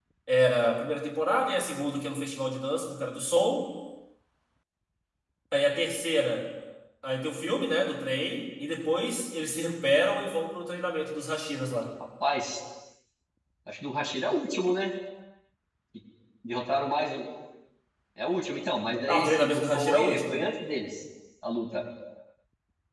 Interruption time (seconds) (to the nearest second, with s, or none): 19 s